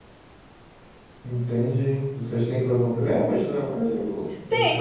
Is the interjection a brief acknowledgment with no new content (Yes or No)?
No